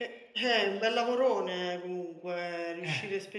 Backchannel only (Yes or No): Yes